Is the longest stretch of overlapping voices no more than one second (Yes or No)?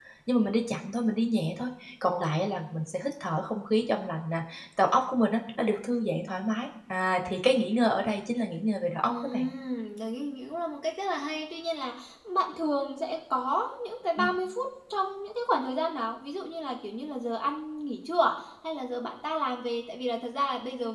Yes